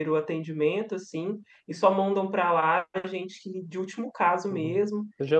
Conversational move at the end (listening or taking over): taking over